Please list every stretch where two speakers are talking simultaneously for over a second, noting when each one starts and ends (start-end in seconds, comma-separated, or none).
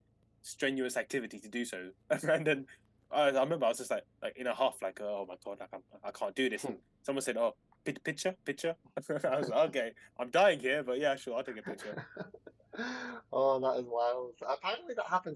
none